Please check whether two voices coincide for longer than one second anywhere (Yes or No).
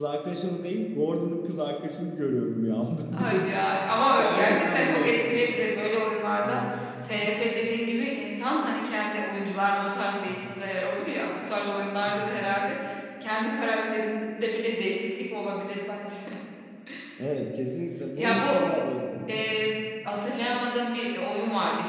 Yes